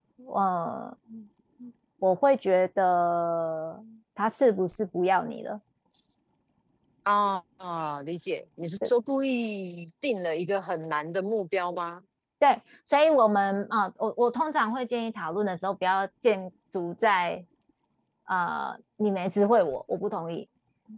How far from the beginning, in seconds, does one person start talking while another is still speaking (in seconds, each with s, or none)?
none